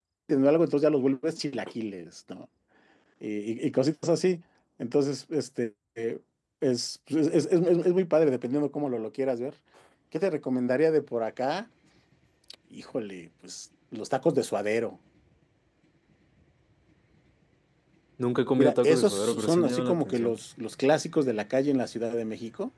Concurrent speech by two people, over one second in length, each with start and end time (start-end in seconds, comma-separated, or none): 18.6-20.3